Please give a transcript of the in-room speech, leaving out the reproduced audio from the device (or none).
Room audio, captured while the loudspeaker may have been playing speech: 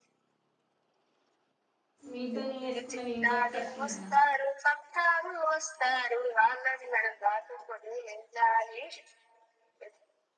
మీ ఇద్దరు నీ వేసుకుంటన్నా నేను చేత తట్టున్నాగా